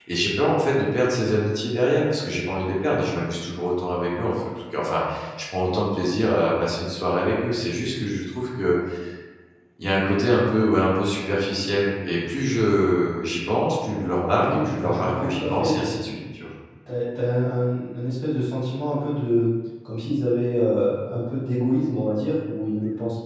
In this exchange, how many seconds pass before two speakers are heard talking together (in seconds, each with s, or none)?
14.3 s